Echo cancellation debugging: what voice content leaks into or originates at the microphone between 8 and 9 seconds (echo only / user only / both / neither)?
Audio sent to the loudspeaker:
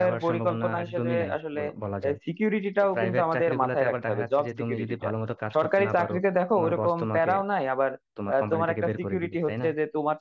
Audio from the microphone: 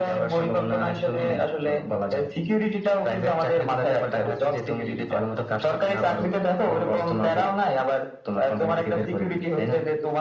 echo only